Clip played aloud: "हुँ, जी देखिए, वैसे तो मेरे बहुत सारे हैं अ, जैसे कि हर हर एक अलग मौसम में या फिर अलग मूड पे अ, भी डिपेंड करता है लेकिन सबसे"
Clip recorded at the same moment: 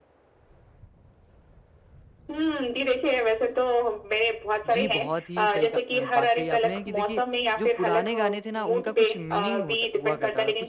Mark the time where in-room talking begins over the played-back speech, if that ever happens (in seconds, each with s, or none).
4.7 s